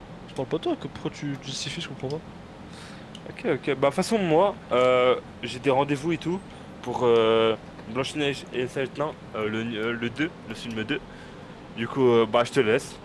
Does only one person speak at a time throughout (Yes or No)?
Yes